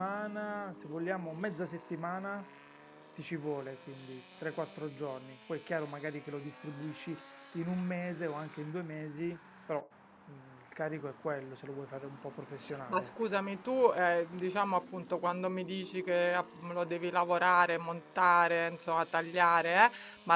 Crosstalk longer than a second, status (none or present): none